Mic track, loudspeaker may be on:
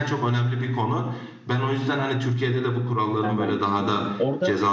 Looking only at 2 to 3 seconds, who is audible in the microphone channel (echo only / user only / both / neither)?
echo only